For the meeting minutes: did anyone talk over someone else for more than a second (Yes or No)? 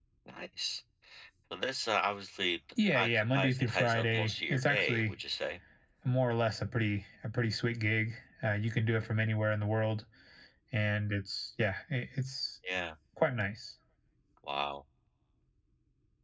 Yes